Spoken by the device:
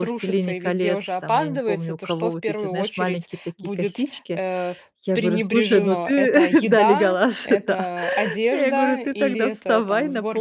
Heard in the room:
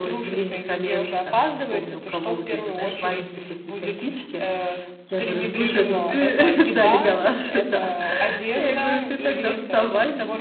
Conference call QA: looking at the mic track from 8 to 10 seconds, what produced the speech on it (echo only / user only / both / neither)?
echo only